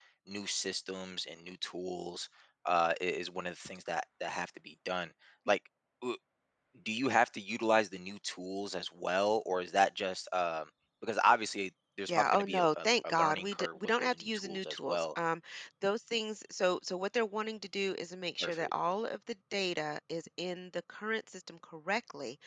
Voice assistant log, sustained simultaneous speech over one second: present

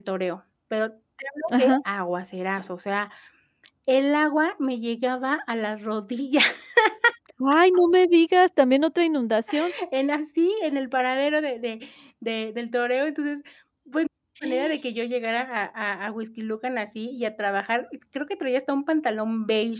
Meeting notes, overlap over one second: none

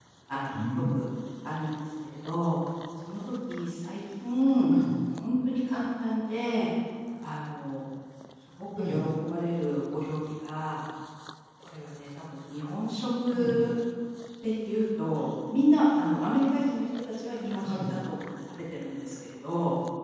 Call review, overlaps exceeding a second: none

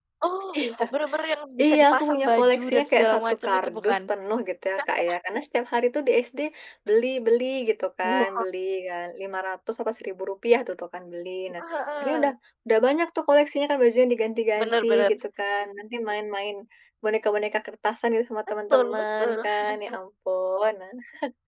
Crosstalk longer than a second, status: present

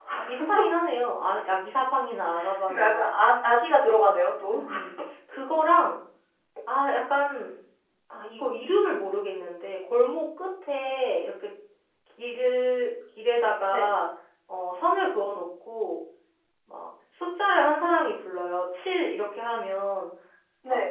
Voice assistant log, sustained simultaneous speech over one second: none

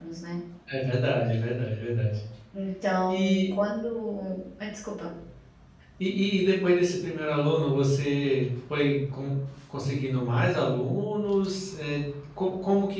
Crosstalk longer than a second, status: none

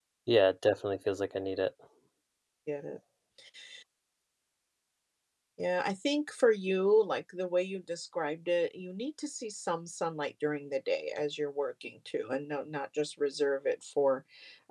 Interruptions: none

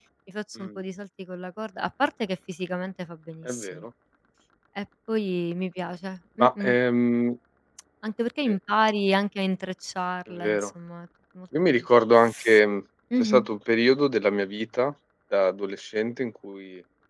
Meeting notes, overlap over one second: none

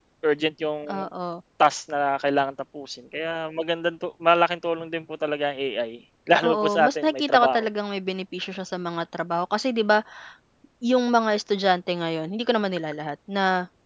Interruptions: present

